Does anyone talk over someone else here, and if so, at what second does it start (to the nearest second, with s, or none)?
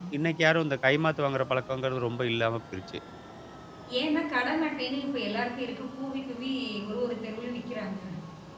none